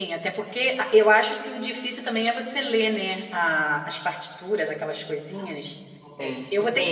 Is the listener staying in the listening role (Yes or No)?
Yes